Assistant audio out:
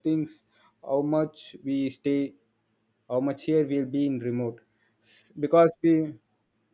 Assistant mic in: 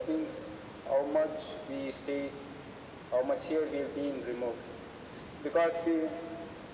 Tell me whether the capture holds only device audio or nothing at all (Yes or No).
Yes